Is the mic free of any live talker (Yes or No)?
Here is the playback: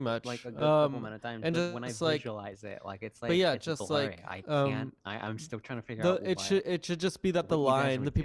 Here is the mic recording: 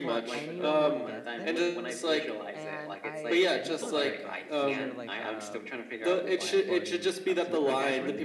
No